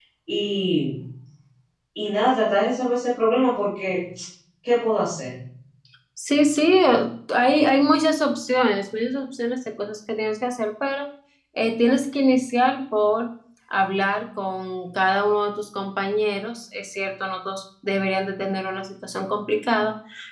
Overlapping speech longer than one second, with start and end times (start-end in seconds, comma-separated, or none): none